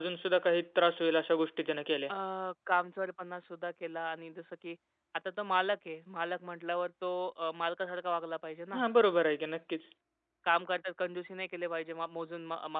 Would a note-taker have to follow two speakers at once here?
No

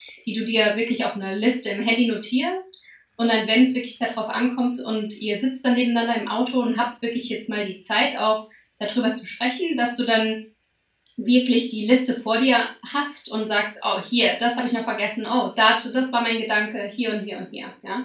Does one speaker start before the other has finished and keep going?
No

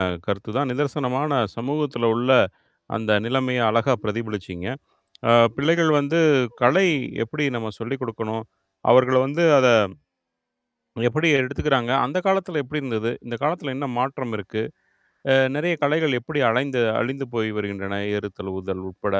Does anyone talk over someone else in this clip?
No

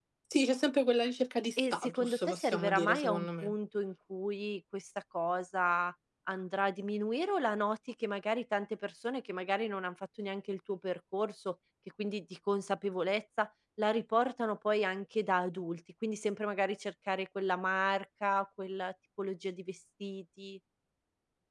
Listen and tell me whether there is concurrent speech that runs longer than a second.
Yes, from 1.6 s

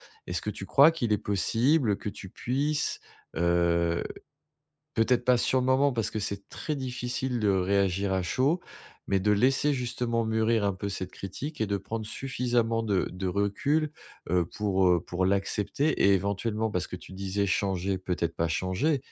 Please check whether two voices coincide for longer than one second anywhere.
No

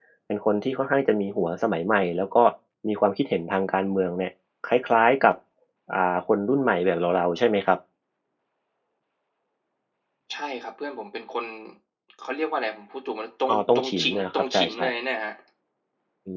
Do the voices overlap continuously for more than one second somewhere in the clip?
Yes, from 13.5 s

